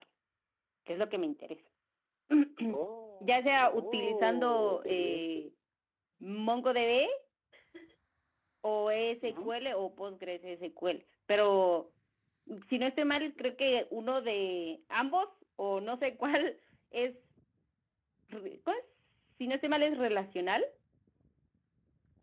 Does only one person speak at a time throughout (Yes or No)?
No